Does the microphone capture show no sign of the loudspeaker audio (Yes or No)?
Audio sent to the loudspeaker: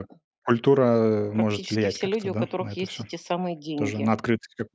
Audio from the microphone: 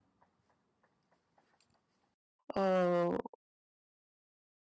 Yes